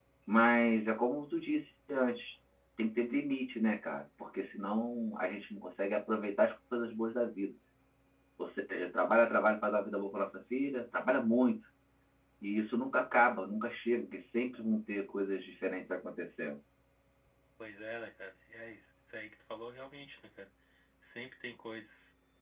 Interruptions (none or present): none